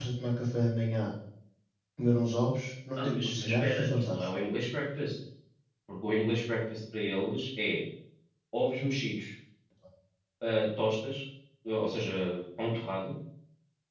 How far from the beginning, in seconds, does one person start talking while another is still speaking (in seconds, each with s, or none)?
3.0 s